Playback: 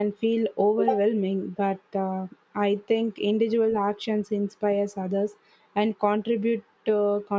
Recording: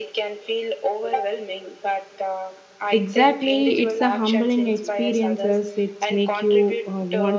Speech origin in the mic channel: both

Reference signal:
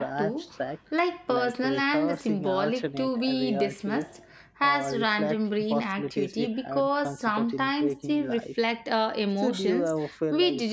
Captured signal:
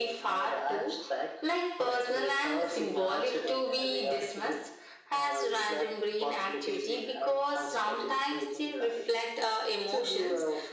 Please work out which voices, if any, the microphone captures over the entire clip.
echo only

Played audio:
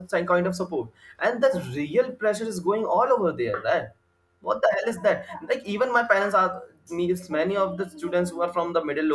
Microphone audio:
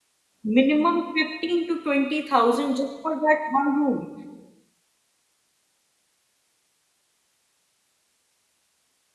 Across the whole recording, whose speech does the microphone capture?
user only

